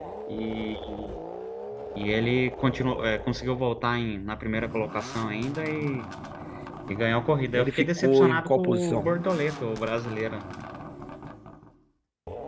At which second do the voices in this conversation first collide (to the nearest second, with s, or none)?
8 s